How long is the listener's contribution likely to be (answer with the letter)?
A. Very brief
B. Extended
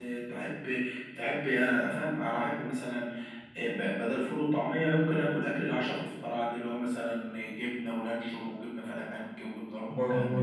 B